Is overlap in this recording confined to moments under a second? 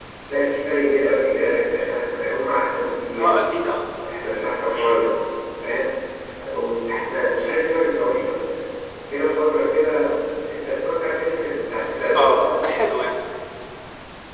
Yes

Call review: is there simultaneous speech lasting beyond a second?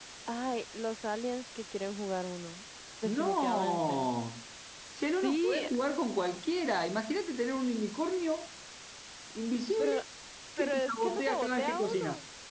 Yes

